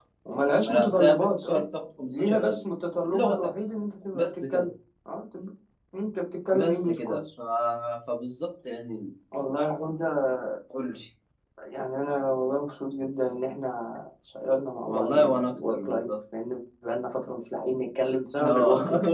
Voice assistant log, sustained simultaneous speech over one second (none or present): present